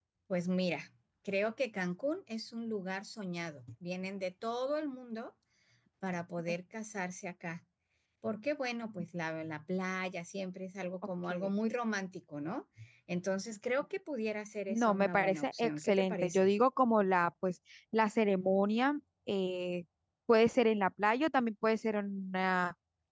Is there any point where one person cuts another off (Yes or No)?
Yes